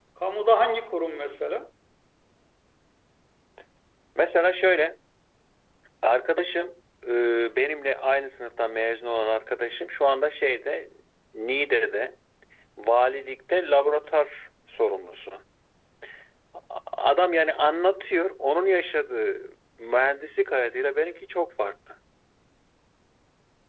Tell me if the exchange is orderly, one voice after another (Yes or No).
Yes